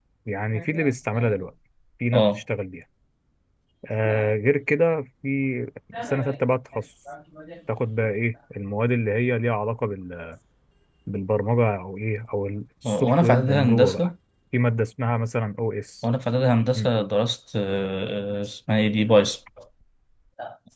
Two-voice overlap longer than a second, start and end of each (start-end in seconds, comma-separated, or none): 12.8-14.1